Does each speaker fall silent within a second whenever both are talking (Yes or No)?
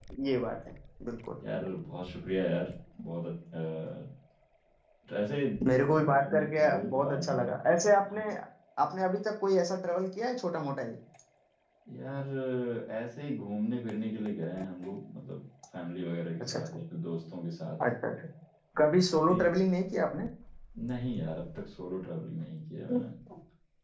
No